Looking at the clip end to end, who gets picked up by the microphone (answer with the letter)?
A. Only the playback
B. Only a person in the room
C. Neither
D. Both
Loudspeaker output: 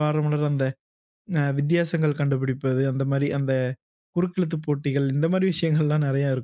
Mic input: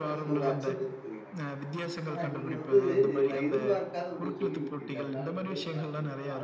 D